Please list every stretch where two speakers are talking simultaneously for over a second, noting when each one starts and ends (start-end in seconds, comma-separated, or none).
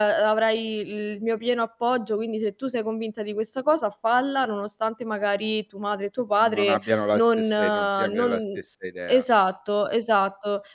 6.4-8.4